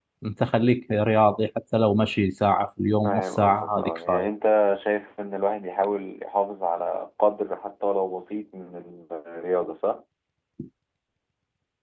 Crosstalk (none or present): present